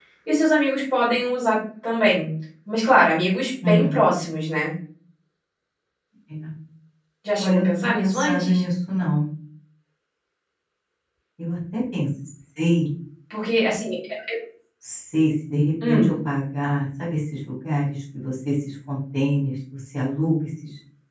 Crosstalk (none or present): present